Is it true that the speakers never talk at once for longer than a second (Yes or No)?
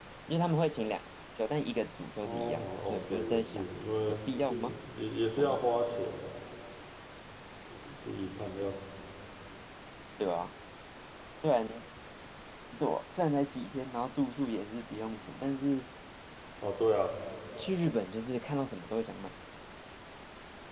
No